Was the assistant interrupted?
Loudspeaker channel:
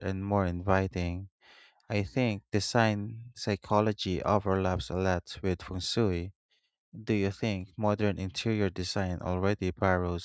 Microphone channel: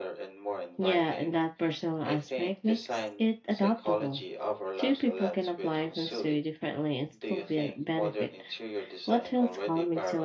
Yes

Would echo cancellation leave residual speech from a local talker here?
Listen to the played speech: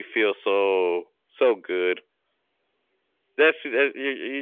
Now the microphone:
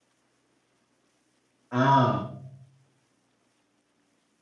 Yes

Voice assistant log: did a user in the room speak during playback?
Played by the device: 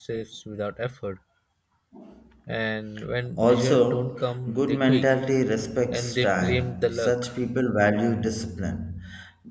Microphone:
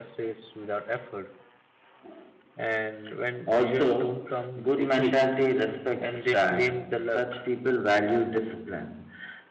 No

